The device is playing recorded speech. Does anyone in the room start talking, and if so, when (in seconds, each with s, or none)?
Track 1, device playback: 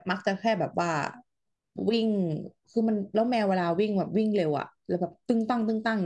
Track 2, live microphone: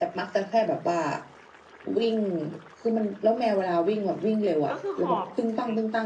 4.7 s